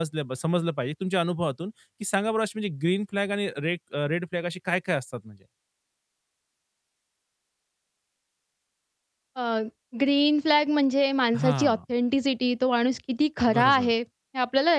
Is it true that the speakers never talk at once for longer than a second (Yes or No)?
Yes